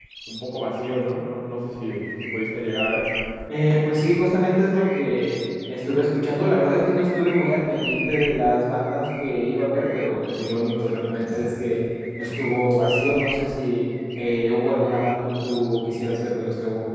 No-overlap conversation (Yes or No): Yes